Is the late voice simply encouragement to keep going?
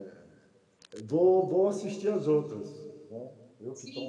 No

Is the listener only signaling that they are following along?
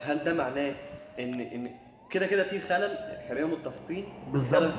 No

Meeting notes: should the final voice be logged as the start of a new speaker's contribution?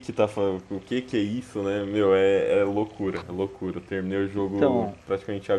No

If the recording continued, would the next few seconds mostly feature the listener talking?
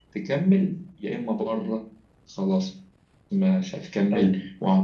No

